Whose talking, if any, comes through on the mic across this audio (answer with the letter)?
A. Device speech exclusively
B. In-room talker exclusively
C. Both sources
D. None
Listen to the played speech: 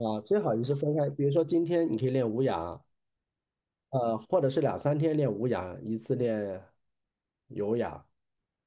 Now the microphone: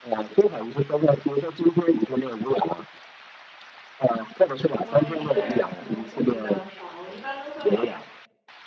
C